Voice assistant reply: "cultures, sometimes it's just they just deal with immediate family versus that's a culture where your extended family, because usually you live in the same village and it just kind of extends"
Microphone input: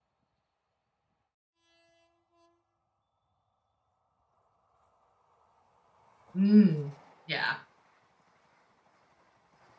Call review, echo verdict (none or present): none